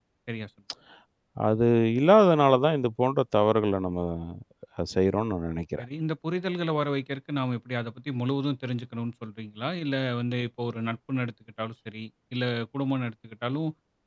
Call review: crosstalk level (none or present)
none